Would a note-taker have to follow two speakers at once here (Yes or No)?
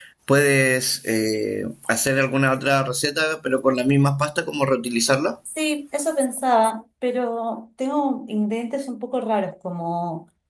No